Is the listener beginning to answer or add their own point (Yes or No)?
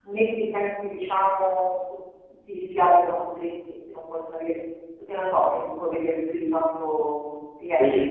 Yes